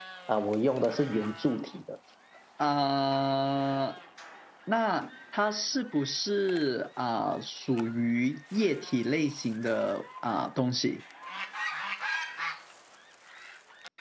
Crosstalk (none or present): none